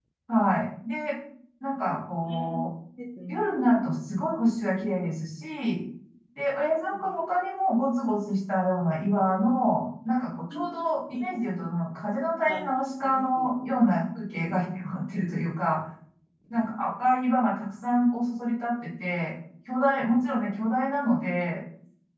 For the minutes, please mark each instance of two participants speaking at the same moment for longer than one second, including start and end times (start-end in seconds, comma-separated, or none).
none